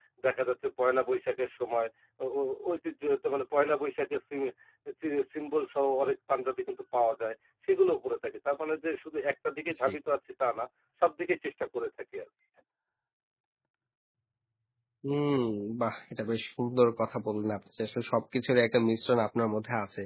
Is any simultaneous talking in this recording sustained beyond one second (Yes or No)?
No